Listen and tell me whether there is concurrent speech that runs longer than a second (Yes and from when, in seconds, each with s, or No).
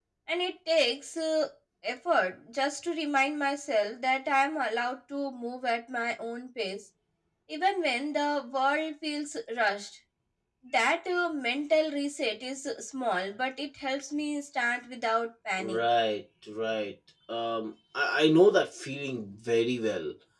No